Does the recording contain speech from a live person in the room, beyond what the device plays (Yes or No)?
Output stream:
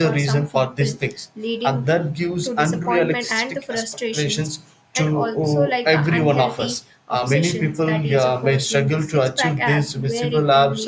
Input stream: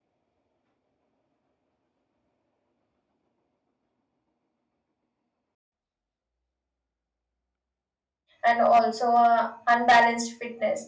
Yes